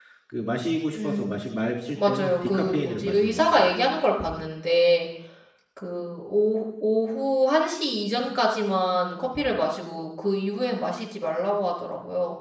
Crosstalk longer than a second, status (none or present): present